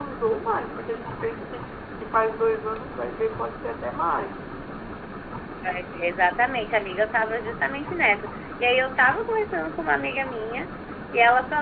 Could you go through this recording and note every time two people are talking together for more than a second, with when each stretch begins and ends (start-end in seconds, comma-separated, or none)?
none